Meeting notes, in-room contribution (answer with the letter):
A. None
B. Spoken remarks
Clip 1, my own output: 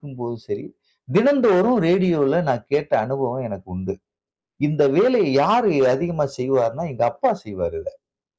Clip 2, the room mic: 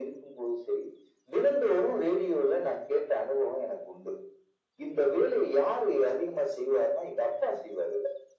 A